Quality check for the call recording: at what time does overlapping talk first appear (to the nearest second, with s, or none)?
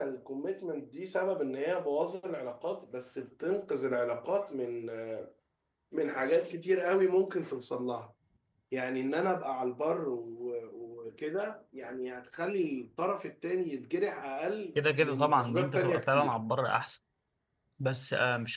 15 s